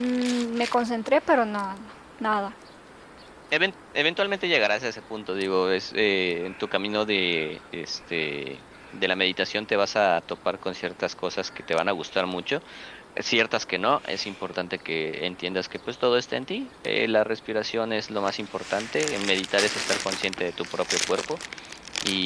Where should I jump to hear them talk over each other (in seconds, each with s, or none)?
none